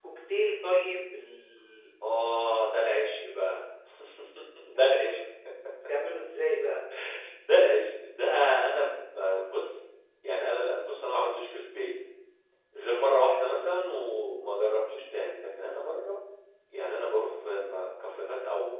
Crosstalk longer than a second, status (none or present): none